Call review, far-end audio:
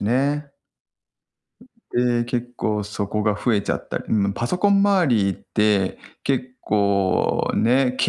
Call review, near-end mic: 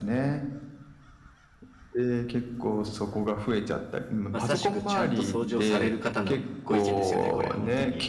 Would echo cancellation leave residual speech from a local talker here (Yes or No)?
Yes